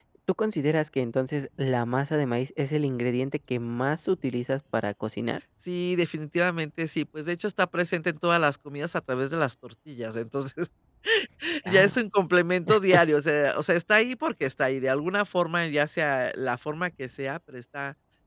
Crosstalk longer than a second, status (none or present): none